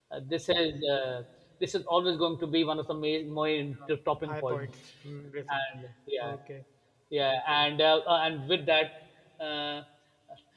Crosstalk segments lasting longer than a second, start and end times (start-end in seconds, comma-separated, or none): none